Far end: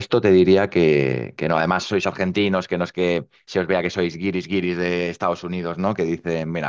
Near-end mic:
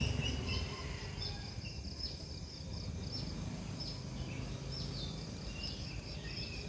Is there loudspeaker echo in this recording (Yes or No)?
No